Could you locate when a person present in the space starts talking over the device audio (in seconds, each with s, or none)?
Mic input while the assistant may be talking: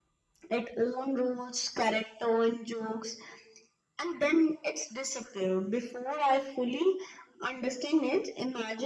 none